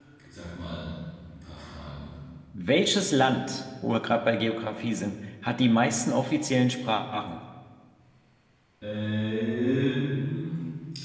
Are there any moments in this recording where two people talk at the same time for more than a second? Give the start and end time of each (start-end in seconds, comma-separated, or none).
none